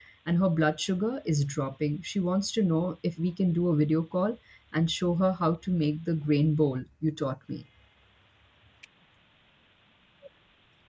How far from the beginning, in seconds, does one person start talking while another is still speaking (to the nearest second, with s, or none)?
none